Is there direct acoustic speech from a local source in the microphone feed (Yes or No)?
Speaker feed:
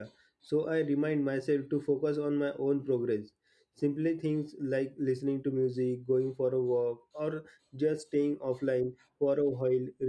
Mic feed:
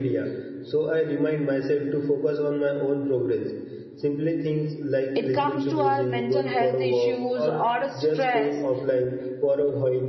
Yes